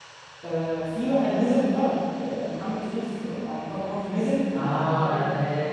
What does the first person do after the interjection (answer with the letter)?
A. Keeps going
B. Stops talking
B